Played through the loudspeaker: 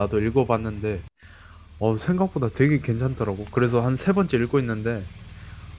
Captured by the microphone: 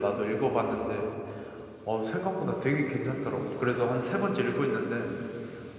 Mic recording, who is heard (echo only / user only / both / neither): echo only